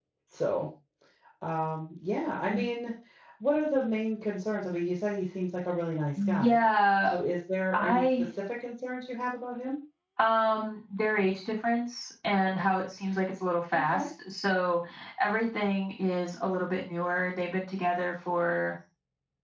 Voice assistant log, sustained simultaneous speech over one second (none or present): none